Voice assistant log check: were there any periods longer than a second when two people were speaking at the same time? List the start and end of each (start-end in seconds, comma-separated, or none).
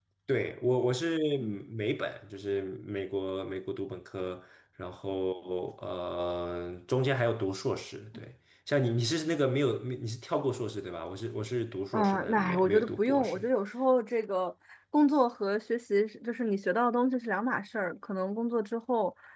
11.9-13.4